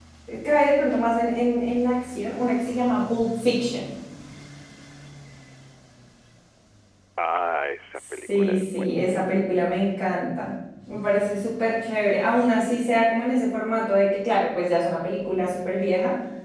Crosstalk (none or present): present